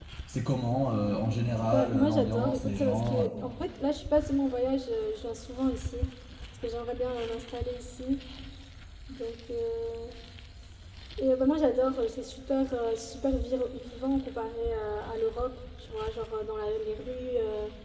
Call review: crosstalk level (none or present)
present